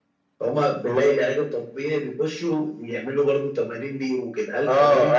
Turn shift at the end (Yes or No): Yes